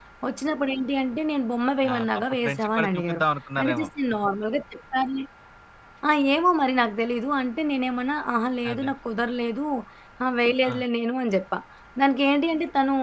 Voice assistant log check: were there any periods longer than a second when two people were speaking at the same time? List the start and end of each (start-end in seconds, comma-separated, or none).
1.9-3.2